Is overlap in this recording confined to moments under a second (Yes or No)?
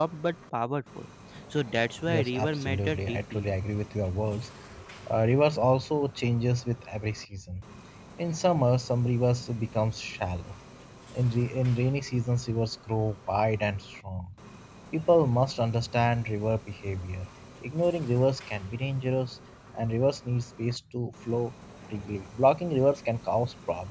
No